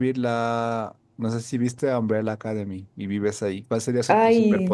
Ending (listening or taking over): taking over